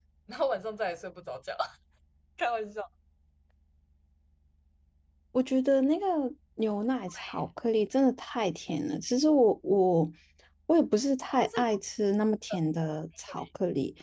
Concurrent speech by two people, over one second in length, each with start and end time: none

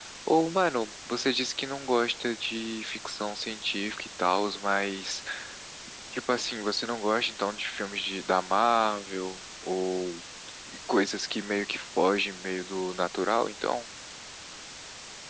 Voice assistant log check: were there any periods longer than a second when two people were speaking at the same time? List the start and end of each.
none

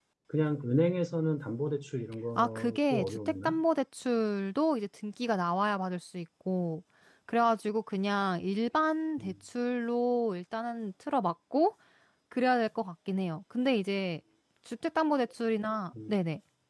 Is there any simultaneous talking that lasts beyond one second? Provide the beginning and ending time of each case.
2.4-3.6

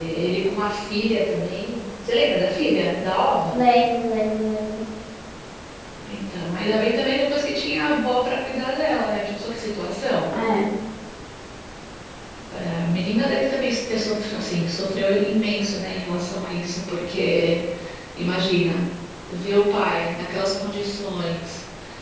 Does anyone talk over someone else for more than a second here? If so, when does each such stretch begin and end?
none

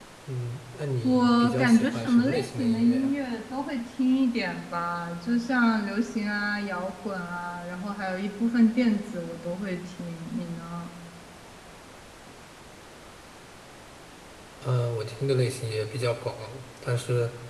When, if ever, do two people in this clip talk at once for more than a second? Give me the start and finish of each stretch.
1.0-3.1

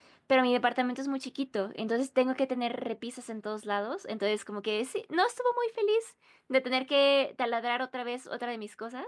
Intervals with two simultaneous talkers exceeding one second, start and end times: none

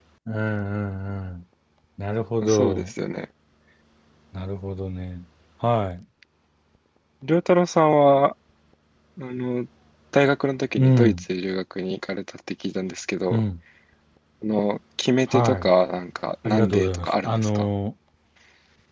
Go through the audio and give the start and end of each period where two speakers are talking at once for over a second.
16.4-17.7

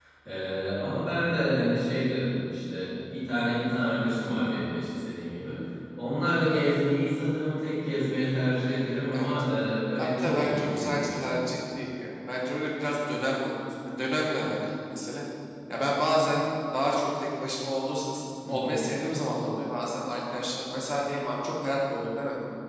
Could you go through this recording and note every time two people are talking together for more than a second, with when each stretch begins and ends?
10.0-11.3

